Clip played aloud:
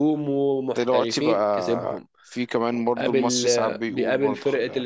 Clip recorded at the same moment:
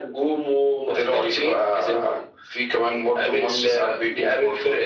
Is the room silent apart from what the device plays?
Yes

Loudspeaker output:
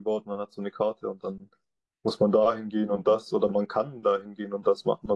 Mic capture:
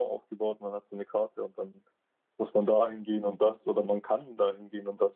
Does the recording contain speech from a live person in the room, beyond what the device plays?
No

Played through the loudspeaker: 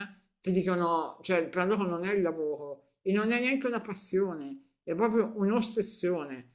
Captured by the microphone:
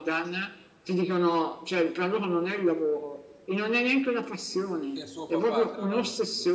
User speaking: Yes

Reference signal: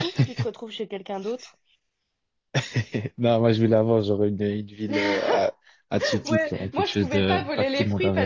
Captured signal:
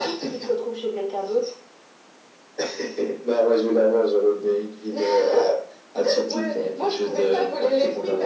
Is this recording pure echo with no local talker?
Yes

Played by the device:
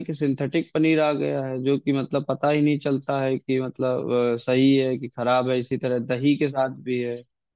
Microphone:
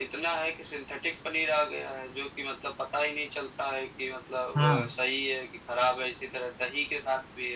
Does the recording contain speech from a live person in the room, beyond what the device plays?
Yes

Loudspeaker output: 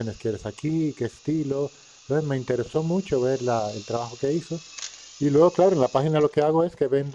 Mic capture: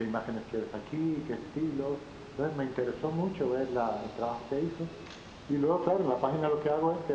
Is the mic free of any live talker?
Yes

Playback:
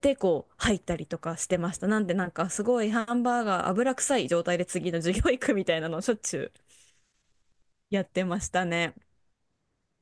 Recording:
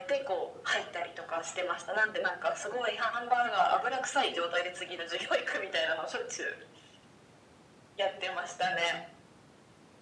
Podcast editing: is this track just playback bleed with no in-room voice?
Yes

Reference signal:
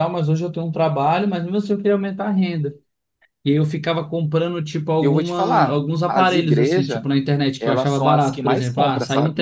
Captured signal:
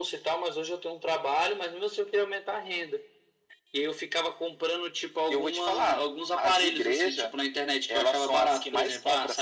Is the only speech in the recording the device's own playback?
Yes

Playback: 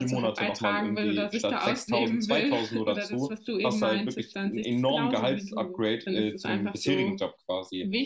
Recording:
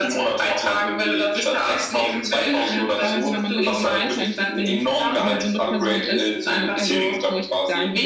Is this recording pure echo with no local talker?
No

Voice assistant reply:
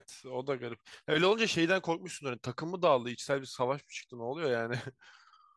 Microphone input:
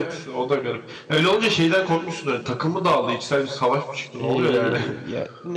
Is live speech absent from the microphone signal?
No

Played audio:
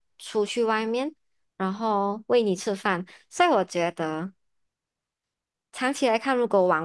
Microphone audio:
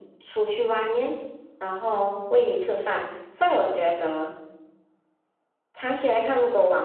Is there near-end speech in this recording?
No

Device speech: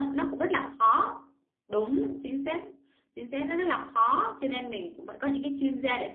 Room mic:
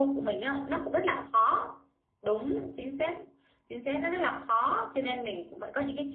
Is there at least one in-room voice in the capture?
No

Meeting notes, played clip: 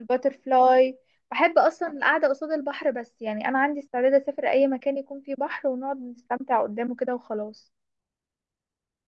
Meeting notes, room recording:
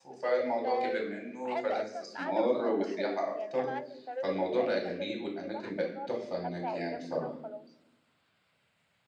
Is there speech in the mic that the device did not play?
Yes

